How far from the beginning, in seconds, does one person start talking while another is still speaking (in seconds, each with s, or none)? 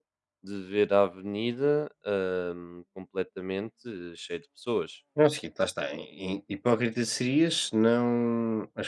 none